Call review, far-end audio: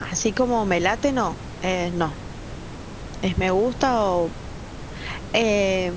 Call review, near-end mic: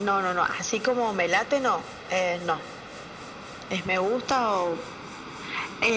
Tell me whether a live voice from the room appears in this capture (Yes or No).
No